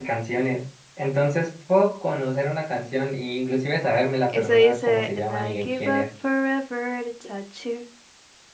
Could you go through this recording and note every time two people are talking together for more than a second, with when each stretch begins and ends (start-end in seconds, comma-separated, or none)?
4.3-6.0